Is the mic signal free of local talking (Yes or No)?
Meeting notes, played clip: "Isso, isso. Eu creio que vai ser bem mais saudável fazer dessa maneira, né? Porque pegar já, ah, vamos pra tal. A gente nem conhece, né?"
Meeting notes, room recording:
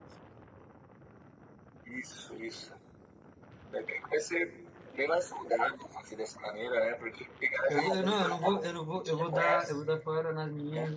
No